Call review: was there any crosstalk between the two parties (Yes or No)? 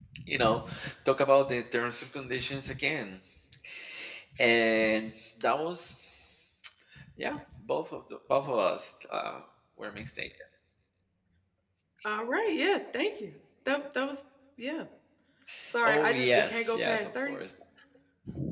Yes